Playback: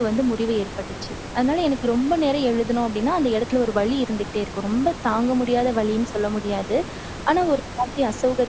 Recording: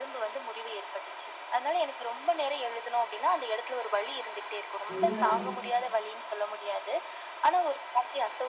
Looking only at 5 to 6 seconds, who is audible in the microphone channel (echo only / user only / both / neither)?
both